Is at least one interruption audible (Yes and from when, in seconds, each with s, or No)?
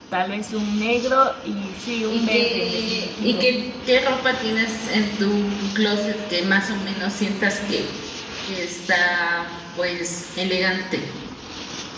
Yes, from 2.1 s